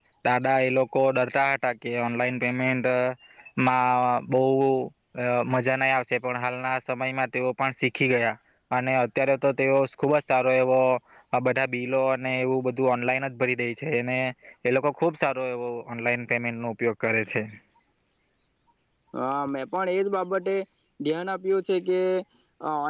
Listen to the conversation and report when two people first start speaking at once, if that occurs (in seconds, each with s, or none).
none